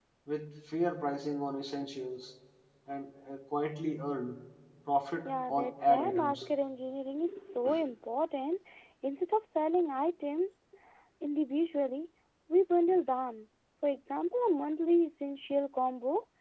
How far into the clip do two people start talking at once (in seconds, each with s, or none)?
5.2 s